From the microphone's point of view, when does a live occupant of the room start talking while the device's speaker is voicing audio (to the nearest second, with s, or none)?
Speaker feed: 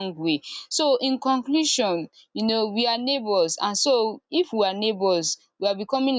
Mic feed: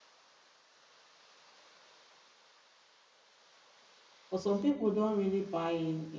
4 s